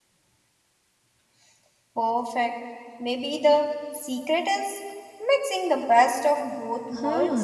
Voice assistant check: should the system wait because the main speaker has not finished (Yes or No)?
No